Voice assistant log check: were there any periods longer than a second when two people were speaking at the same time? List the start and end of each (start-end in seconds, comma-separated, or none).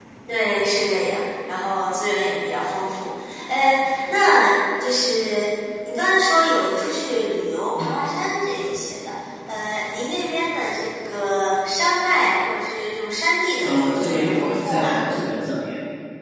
13.6-15.0